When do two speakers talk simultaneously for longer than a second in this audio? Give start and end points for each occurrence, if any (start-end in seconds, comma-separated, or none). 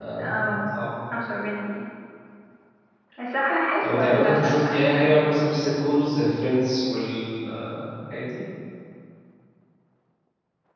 3.8-5.2